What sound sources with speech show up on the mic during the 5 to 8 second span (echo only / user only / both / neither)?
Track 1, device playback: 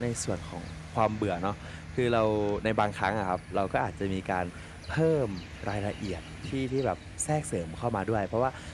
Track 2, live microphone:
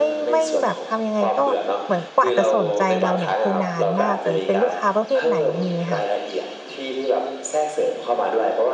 both